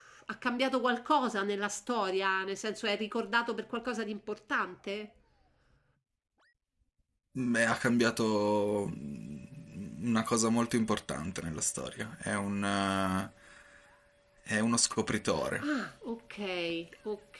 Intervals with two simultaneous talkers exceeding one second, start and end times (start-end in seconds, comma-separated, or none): none